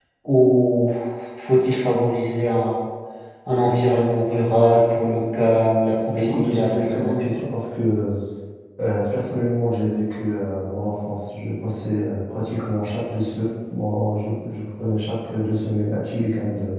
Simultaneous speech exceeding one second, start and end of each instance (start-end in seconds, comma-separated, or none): 6.1-7.3